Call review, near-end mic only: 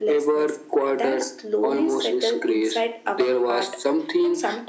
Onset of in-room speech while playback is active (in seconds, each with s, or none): none